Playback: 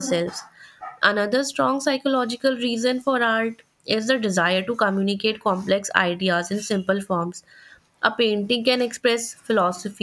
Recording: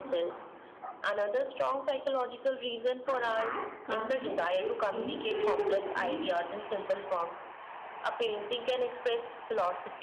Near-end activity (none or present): present